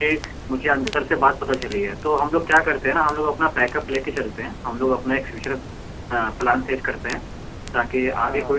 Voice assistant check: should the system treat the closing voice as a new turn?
No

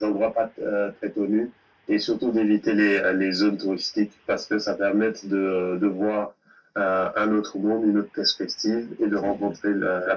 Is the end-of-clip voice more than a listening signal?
No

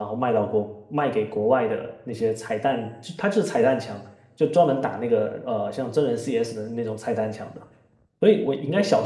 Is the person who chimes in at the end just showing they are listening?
Yes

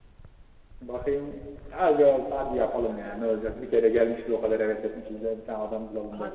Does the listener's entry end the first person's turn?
Yes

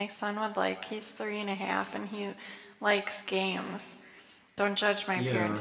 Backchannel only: Yes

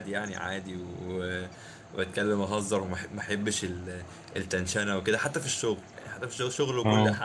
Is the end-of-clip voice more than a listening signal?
No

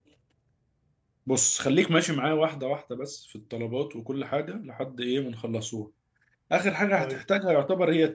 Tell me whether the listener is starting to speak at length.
No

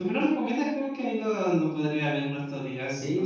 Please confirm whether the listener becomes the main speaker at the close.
Yes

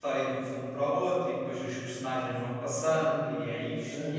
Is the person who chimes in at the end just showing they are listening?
No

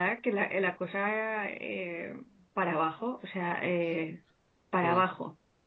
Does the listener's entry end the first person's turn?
No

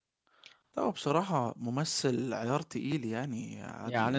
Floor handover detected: Yes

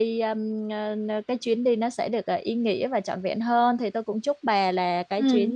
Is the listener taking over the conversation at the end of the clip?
No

